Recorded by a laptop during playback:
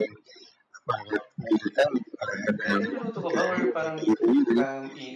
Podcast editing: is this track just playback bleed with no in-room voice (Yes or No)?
No